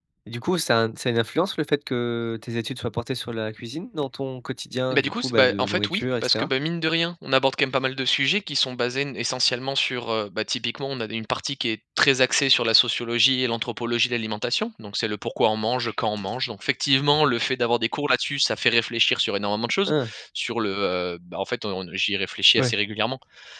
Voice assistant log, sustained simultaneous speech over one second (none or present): present